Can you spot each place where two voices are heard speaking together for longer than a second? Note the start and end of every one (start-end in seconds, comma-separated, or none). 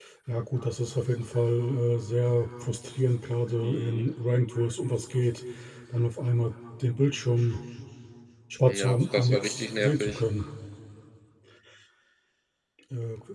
8.7-10.2